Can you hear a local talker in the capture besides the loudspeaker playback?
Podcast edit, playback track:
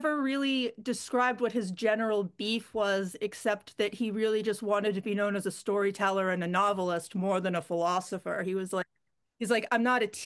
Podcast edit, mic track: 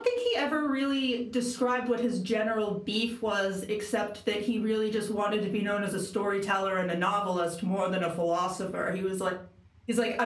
No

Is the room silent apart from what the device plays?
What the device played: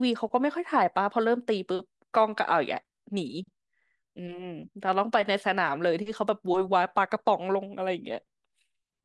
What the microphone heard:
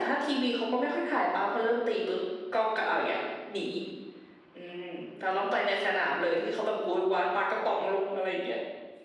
Yes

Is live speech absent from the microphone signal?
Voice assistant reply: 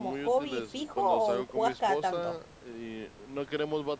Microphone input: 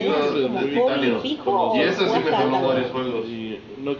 No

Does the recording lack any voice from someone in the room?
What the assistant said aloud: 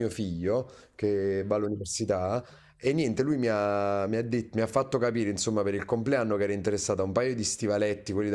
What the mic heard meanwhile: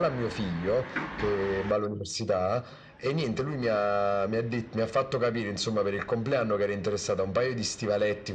Yes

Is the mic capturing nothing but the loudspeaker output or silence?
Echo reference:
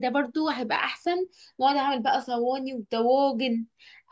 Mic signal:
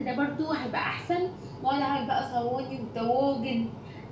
Yes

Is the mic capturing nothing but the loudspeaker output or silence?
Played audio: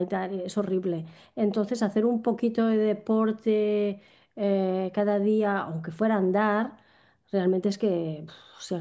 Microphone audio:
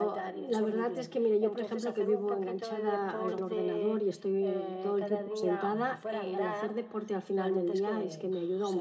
No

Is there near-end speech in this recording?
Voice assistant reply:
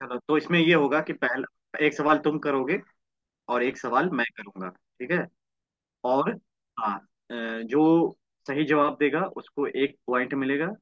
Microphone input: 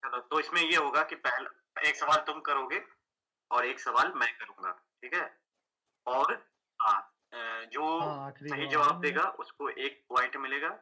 Yes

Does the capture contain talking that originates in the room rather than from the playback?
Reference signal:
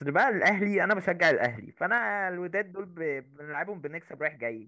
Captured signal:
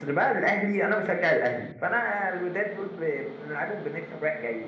No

